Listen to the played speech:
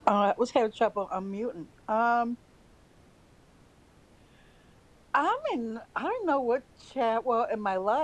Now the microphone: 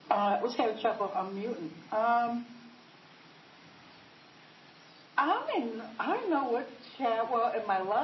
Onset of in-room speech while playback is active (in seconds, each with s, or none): none